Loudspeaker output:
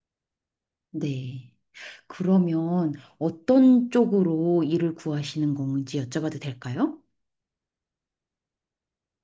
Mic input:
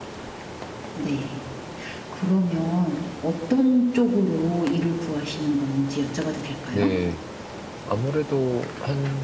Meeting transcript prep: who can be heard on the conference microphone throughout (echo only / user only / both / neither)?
both